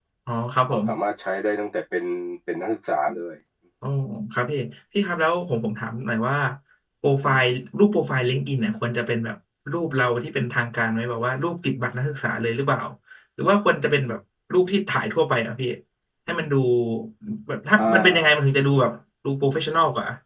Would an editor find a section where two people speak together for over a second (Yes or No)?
No